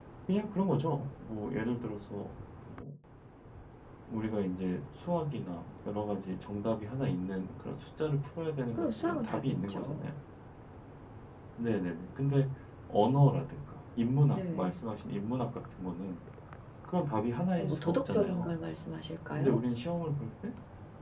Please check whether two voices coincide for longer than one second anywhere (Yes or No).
Yes